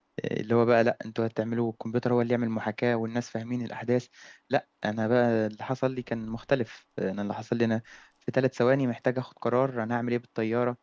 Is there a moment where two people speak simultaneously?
No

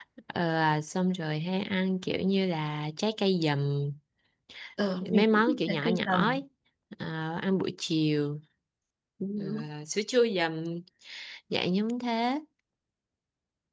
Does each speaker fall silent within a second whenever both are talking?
No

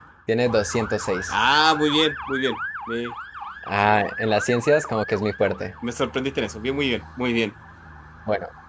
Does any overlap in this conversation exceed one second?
No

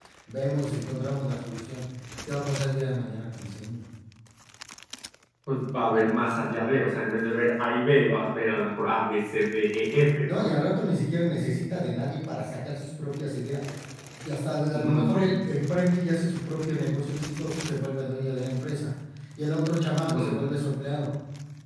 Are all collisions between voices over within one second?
Yes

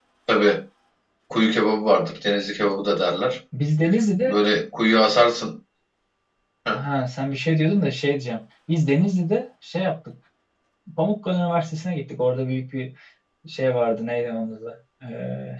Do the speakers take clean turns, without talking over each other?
Yes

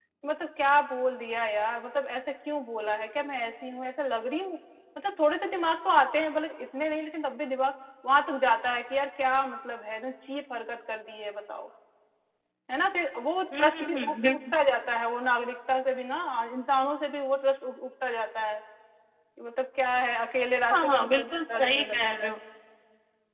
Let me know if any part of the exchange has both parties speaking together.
Yes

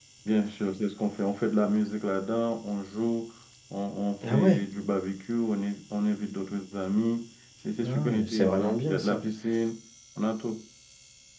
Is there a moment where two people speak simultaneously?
Yes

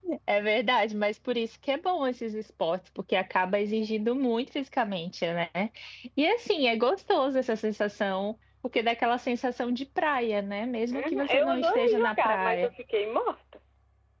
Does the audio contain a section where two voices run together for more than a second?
Yes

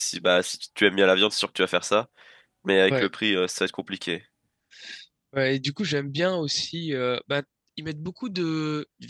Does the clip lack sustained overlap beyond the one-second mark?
Yes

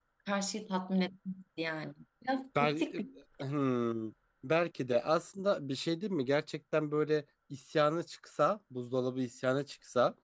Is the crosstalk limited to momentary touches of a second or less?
Yes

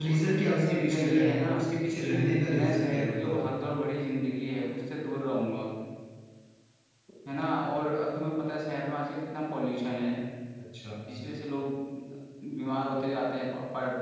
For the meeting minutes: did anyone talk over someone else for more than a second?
Yes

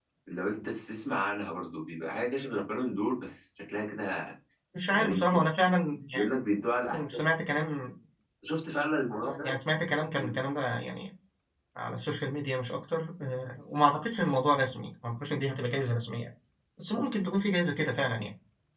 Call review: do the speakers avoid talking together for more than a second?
Yes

